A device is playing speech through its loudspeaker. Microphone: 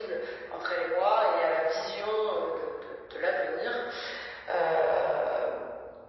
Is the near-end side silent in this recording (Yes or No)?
Yes